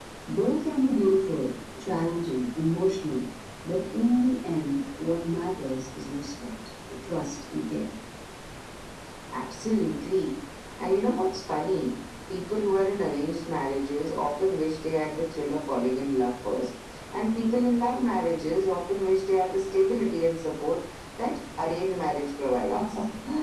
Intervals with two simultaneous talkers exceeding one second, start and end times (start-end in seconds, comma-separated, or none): none